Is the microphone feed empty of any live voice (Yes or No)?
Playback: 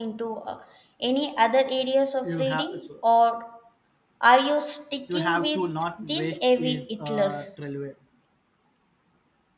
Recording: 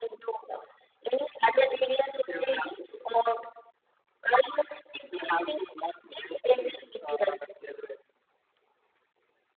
Yes